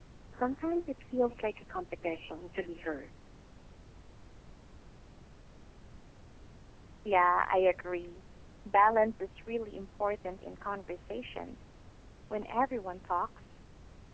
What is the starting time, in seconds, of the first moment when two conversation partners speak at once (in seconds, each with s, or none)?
none